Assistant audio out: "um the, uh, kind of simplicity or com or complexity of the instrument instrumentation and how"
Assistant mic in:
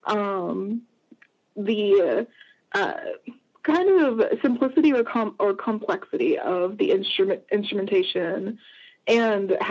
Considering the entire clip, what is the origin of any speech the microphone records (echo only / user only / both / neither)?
echo only